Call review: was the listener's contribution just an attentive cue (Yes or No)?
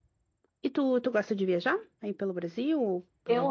No